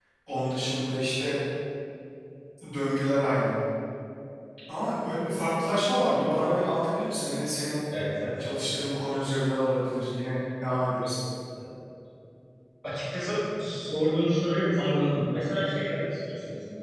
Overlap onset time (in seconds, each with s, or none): none